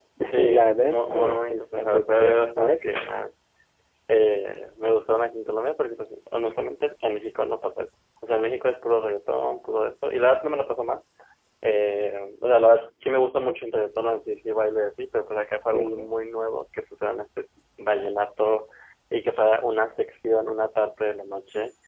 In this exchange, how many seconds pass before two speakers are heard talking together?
1 s

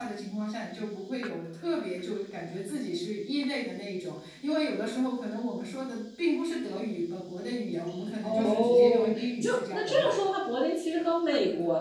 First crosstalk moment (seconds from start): 8 s

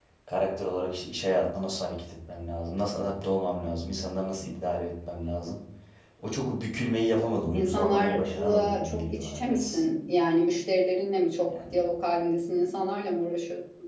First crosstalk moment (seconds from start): 8 s

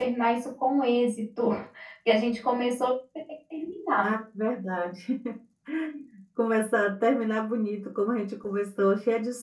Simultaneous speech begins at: none

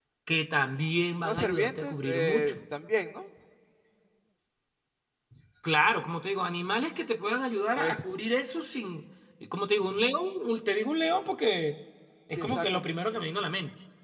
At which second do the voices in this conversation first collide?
1 s

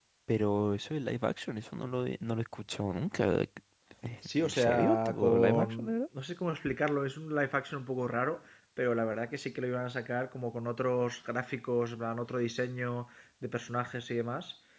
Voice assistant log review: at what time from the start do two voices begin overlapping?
4 s

